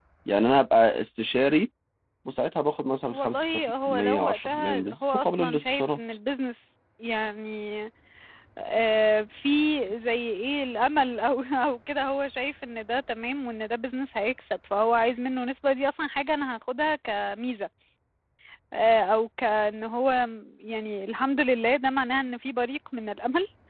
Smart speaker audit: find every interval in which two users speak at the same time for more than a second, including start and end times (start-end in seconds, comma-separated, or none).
3.1-6.0